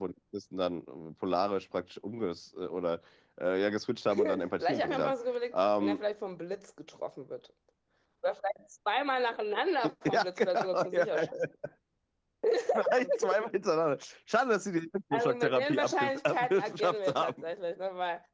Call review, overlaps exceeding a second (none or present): present